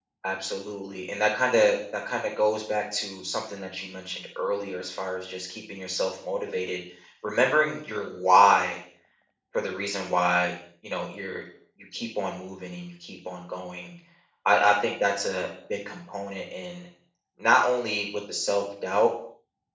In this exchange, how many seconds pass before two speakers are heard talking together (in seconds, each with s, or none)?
none